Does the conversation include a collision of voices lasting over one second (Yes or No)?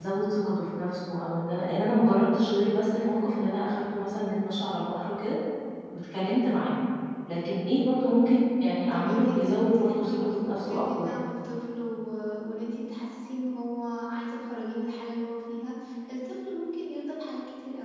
Yes